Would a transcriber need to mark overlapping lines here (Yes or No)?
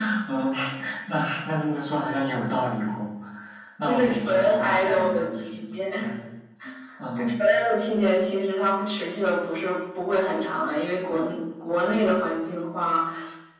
Yes